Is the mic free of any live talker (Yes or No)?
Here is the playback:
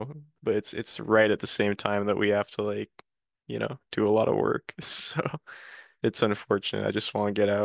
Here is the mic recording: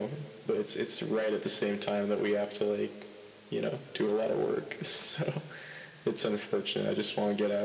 Yes